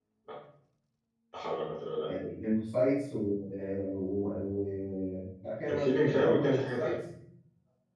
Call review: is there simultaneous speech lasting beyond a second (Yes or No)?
Yes